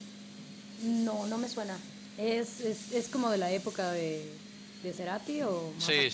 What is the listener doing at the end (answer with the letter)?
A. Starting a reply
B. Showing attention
A